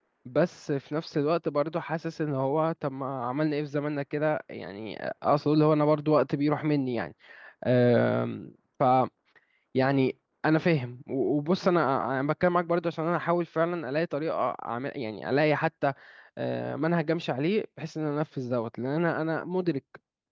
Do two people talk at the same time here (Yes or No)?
No